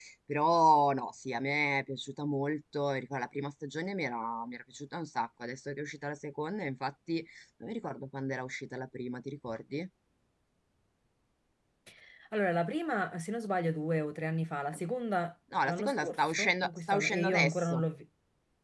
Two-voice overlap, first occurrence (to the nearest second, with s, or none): 16 s